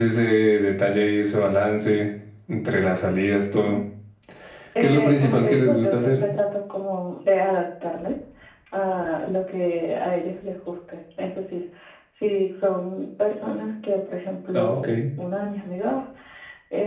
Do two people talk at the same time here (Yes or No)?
Yes